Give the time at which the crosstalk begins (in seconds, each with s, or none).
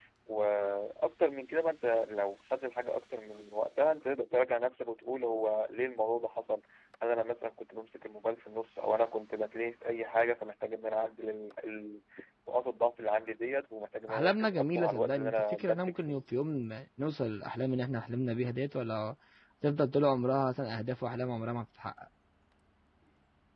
14.1 s